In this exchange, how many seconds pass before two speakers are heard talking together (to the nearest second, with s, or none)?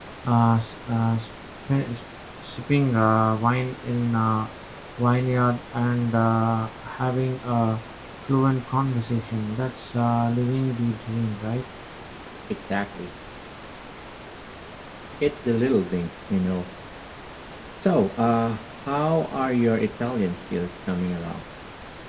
none